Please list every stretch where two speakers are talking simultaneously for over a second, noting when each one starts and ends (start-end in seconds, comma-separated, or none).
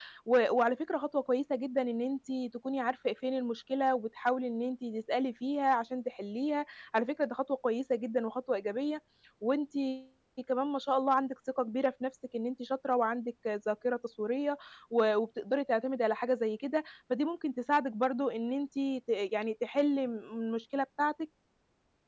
none